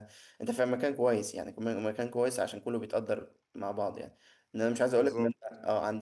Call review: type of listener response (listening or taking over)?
listening